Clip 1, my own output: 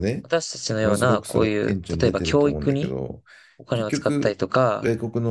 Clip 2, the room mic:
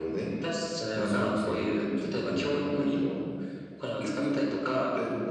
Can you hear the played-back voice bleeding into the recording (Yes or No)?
Yes